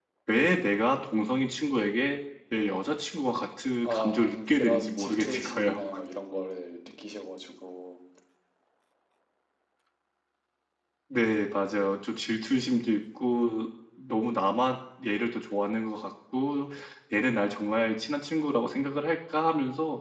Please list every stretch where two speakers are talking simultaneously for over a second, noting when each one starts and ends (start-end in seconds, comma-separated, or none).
3.8-5.8